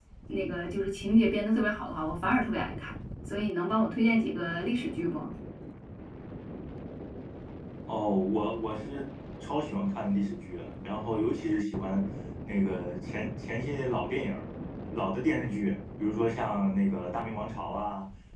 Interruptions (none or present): none